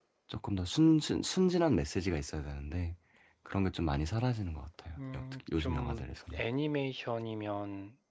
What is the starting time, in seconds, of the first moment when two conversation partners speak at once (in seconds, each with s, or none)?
5.0 s